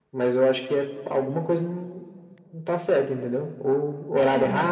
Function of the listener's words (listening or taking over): listening